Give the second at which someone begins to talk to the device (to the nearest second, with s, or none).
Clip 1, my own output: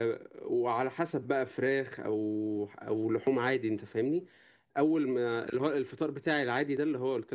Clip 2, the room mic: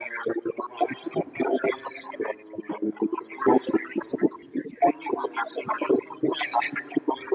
none